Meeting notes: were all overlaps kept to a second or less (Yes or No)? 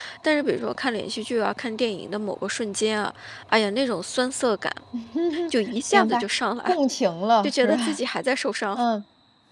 Yes